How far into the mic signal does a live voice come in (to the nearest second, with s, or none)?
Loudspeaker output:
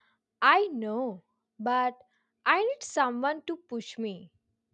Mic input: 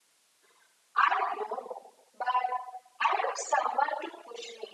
none